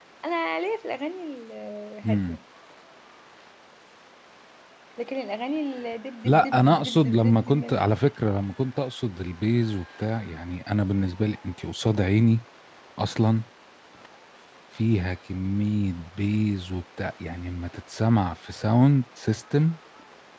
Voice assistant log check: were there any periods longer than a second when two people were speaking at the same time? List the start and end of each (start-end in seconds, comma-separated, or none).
6.2-7.8